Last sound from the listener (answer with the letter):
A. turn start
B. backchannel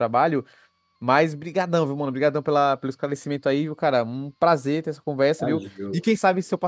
B